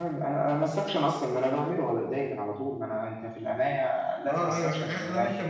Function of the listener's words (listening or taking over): taking over